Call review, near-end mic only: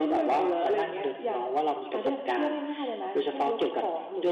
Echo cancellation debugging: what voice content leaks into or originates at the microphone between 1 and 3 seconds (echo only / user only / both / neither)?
echo only